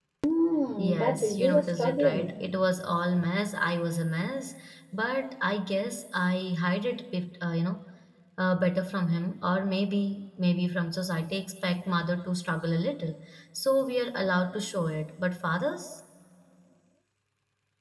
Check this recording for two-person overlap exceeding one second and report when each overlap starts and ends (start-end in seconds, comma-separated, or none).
0.8-2.3